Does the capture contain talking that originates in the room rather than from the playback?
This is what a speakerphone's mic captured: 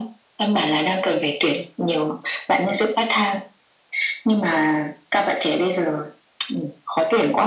No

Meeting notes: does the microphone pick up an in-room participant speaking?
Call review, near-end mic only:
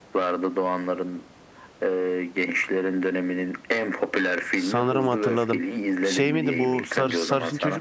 Yes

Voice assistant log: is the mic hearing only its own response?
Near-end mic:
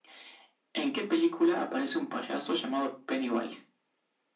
Yes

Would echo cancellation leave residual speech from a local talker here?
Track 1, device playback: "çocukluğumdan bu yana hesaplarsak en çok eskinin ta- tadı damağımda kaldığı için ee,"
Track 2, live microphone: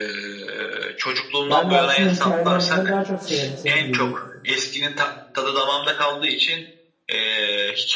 Yes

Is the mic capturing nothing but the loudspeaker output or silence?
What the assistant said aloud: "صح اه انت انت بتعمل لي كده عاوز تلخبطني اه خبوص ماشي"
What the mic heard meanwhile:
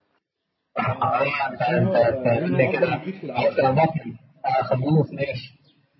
No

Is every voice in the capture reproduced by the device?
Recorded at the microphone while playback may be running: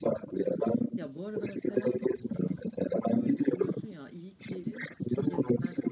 No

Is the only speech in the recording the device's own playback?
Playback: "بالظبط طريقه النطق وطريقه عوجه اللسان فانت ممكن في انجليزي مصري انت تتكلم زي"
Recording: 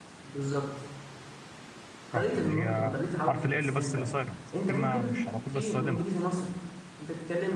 No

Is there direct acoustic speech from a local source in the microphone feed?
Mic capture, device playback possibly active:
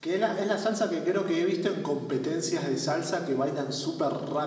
No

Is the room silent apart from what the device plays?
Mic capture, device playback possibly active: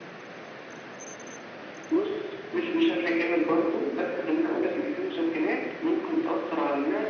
Yes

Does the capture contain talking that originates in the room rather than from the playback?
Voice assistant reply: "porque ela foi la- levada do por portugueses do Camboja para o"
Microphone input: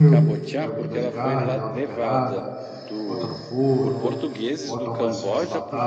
Yes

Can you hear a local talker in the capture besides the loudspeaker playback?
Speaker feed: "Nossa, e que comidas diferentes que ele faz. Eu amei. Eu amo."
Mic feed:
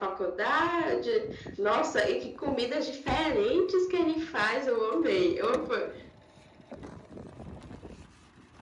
No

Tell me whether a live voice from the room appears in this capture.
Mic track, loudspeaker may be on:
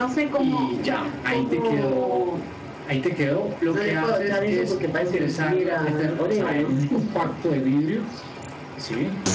No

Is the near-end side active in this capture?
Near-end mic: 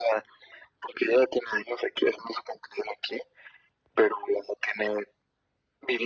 No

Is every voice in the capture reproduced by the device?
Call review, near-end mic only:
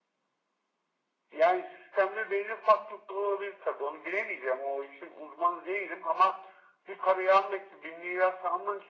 Yes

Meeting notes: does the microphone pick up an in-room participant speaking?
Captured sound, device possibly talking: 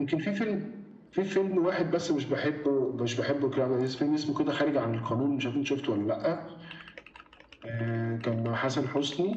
No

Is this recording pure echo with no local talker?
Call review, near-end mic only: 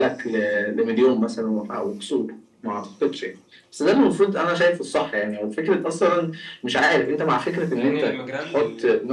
No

